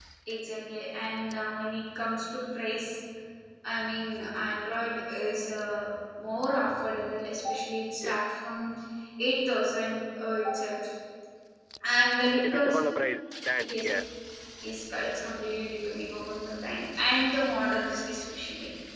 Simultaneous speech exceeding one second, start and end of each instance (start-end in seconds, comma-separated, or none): none